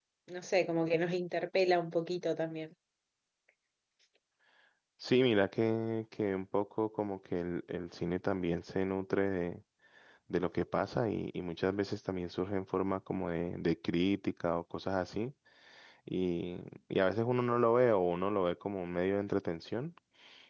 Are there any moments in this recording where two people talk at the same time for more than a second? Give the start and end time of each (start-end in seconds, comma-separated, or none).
none